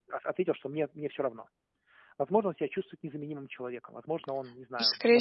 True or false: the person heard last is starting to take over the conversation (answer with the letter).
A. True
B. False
A